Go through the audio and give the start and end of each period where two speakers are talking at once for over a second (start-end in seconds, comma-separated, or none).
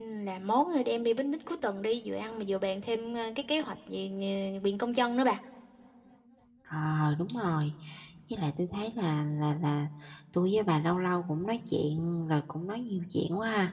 none